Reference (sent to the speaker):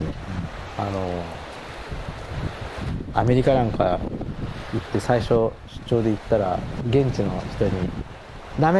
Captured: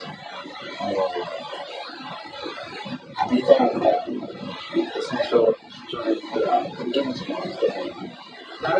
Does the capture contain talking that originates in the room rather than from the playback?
No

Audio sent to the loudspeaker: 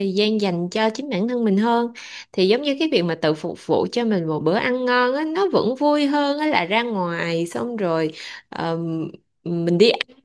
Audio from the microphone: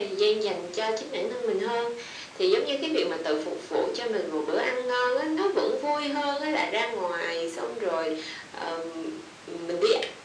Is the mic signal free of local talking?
Yes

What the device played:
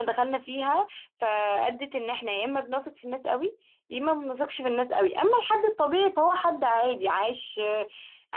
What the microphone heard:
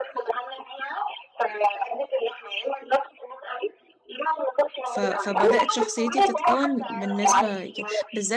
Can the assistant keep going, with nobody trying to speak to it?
No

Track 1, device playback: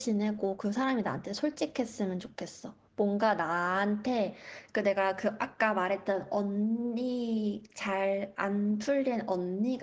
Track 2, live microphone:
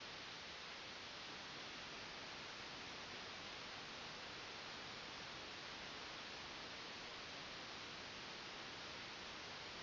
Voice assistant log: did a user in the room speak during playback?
No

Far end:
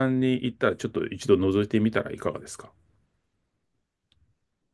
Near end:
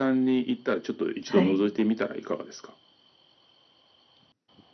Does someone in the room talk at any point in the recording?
Yes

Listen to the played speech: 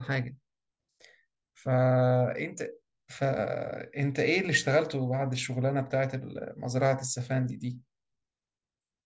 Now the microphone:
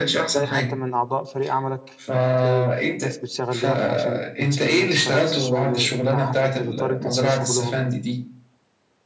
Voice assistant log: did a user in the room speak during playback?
Yes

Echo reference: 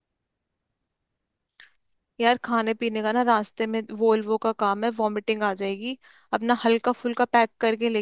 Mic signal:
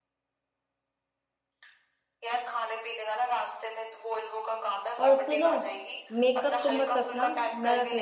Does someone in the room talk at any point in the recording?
Yes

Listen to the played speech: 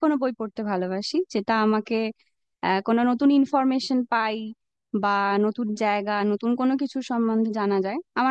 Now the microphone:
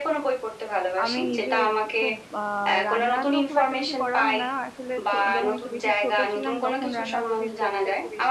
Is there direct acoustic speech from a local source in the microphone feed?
Yes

